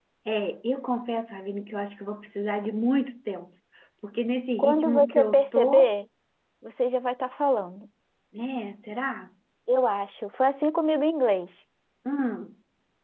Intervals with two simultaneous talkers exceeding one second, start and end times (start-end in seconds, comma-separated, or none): 4.6-5.9